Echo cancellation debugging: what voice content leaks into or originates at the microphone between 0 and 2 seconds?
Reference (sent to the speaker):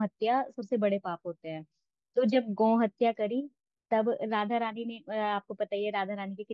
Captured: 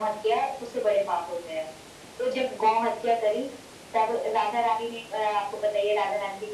echo only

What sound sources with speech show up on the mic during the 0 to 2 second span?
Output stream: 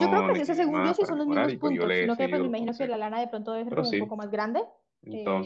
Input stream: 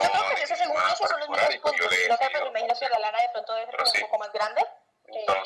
echo only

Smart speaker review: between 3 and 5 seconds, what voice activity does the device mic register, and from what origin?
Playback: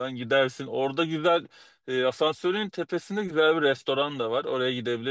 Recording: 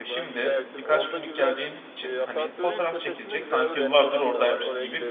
both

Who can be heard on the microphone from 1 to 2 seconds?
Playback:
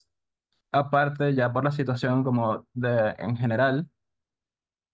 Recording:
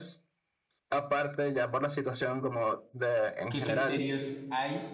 echo only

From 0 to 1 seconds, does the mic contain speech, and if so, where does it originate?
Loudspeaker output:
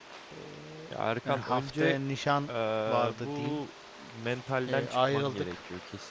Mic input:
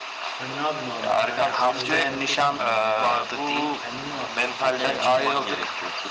both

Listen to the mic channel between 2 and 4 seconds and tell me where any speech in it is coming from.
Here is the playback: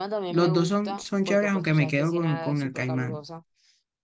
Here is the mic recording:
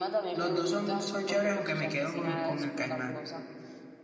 echo only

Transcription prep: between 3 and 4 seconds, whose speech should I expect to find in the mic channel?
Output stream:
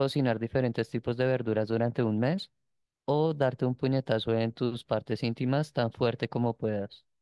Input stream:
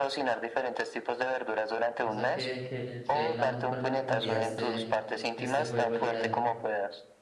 both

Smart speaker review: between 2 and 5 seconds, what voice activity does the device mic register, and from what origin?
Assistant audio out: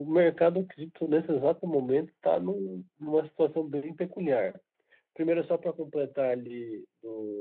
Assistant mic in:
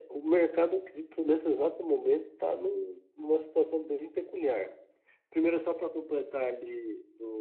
echo only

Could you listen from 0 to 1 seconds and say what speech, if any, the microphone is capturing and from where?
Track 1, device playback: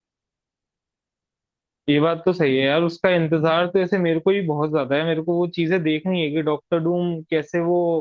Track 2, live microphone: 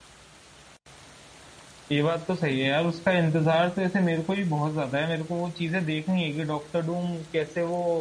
neither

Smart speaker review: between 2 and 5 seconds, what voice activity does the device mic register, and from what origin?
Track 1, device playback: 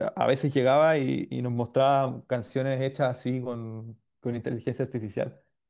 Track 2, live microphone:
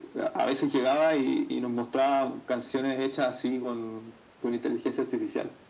echo only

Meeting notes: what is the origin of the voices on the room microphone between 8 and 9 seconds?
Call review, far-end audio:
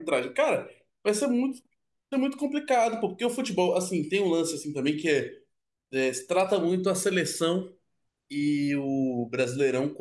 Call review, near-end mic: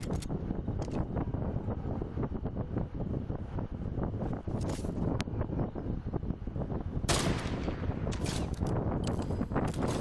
neither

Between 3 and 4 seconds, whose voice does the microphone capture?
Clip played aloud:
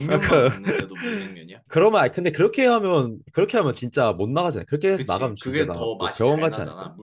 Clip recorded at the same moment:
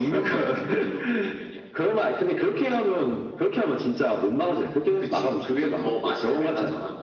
echo only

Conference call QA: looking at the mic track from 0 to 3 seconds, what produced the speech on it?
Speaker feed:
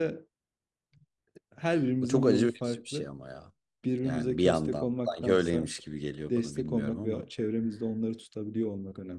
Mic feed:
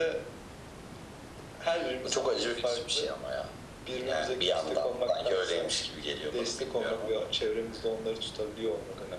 echo only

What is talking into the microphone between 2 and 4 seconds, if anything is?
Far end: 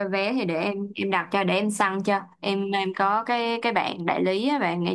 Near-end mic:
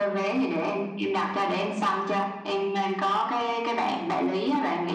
echo only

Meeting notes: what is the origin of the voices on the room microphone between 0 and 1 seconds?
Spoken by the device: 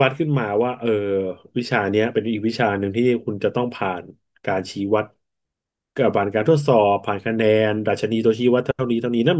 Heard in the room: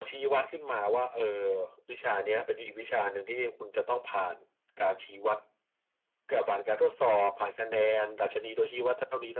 echo only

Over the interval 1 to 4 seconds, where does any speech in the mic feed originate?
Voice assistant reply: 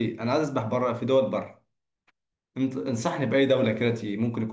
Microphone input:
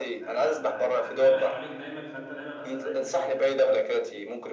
both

